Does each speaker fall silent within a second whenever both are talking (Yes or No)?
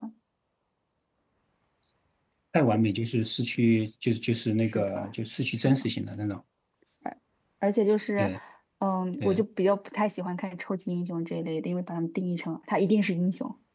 Yes